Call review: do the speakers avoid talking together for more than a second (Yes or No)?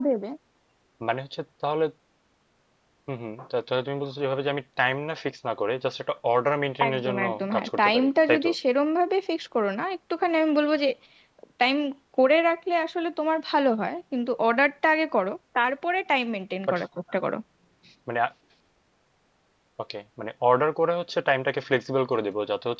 No